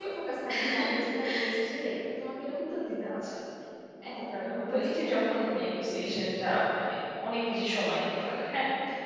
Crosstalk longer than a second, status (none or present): present